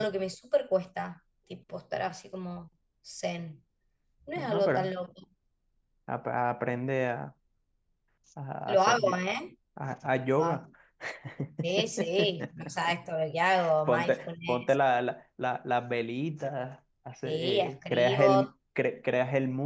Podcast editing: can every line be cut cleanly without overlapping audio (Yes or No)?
No